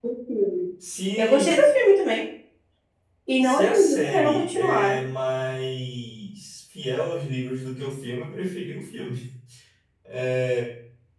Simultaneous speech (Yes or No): Yes